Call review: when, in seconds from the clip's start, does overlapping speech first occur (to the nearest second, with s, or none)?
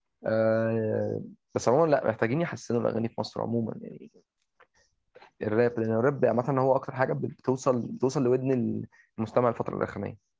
none